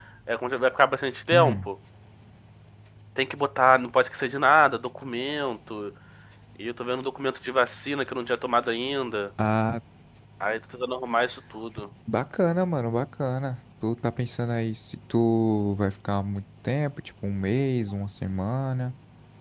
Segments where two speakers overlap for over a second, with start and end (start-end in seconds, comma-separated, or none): none